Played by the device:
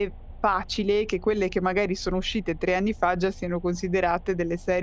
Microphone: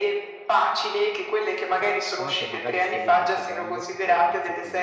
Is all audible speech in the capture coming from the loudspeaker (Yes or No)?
No